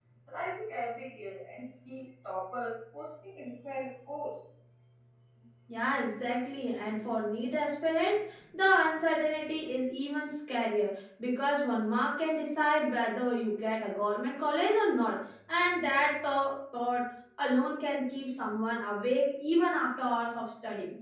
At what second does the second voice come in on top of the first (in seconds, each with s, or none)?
none